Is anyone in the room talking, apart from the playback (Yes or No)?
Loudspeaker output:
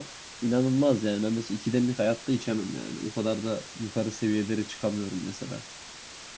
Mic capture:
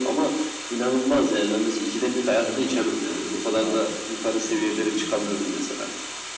Yes